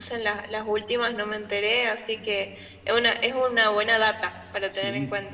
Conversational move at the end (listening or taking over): taking over